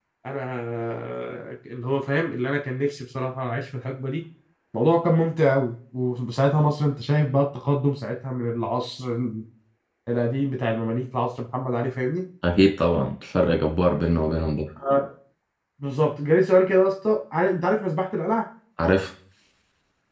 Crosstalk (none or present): none